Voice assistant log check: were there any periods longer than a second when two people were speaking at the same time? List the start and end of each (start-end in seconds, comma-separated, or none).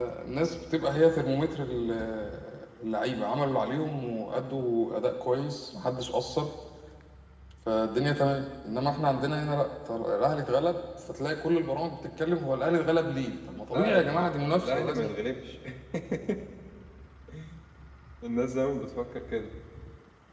13.7-15.1